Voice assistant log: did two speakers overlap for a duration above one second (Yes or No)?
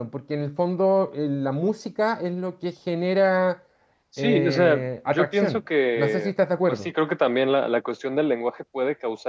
Yes